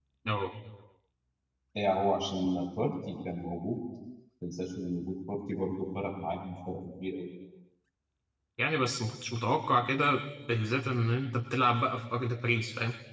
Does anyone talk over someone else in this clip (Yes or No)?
No